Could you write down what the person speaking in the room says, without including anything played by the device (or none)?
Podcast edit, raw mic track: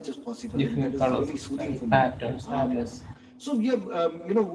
different colors of sky patterns that is